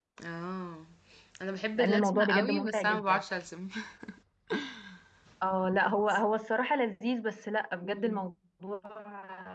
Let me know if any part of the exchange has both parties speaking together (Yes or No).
Yes